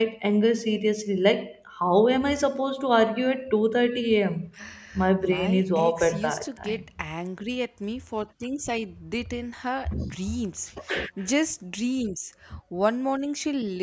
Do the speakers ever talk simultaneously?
Yes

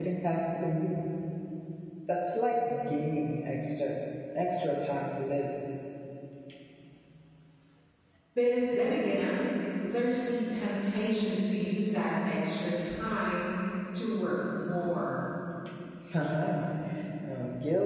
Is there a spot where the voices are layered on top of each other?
No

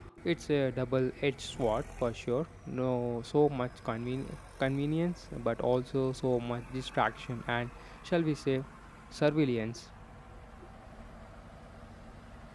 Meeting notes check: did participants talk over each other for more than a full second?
No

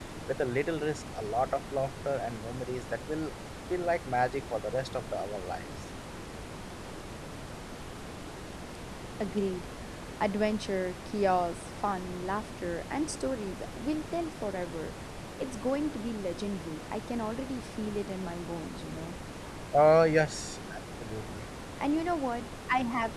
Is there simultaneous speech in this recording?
No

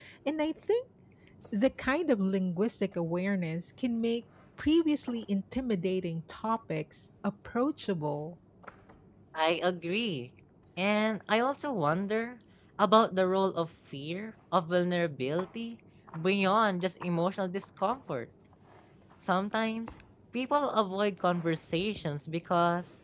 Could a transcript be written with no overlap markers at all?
Yes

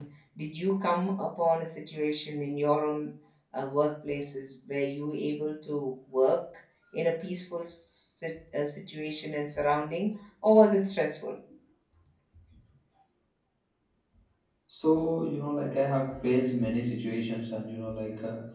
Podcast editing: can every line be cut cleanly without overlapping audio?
Yes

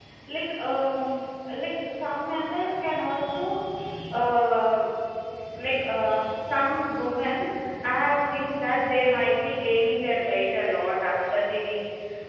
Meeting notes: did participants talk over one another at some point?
No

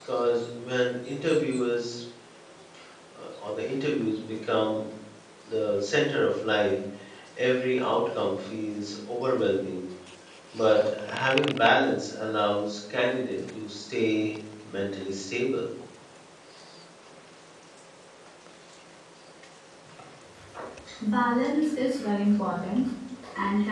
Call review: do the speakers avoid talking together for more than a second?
Yes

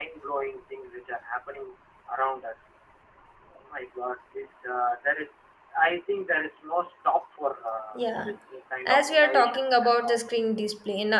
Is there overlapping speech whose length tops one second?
Yes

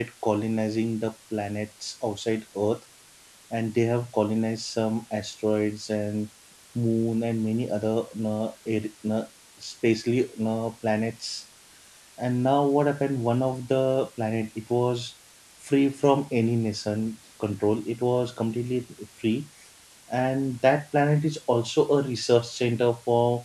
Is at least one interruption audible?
No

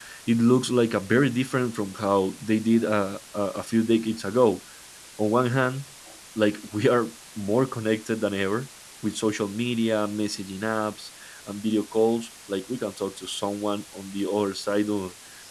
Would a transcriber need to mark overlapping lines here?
No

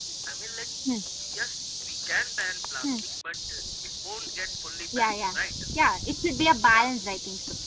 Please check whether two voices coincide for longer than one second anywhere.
No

